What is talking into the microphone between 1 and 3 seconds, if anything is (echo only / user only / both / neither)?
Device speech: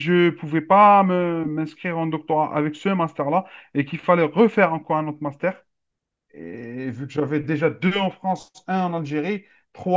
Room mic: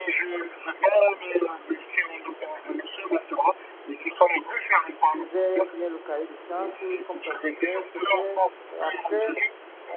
echo only